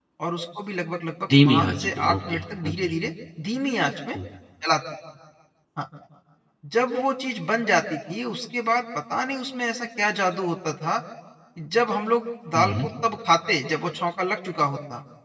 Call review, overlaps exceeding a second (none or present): present